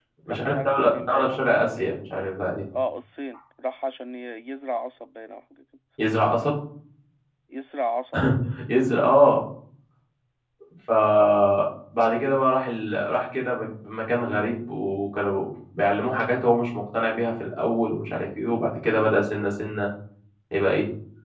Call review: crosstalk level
present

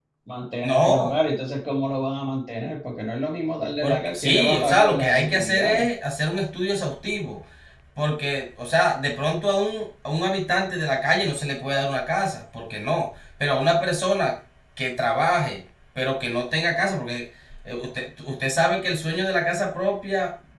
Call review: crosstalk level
present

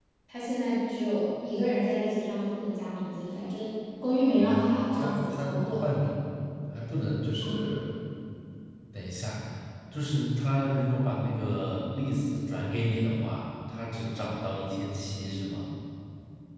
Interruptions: present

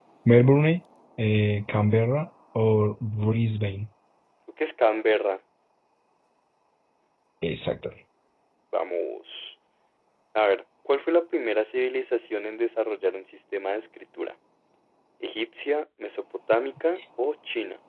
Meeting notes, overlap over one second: none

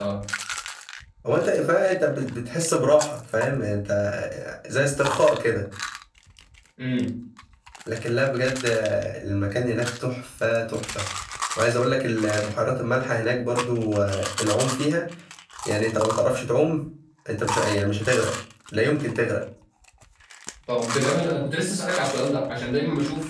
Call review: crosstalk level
none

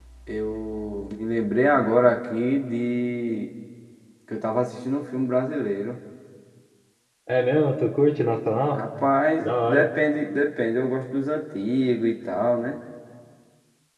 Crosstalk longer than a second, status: none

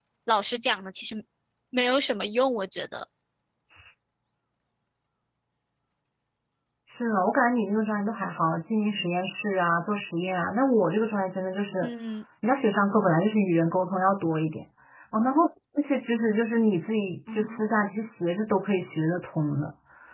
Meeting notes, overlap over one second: none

